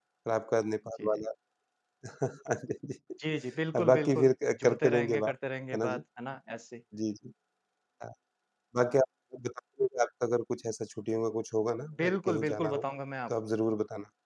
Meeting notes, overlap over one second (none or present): present